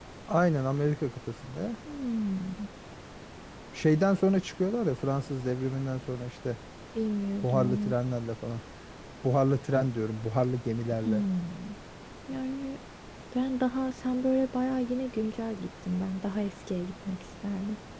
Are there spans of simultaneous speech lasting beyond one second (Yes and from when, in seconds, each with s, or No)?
No